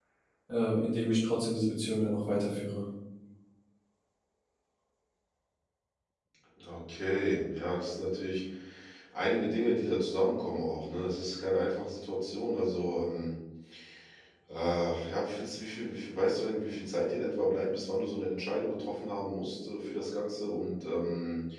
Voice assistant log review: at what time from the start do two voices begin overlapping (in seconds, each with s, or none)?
none